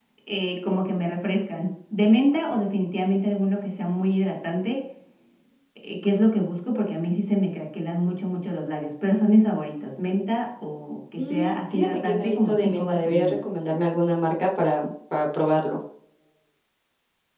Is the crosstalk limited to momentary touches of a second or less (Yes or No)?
No